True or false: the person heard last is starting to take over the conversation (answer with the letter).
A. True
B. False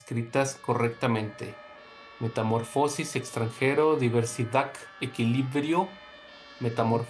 B